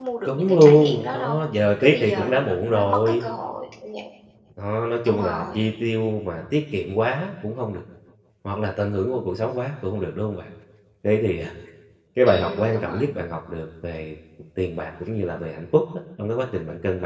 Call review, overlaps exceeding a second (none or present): present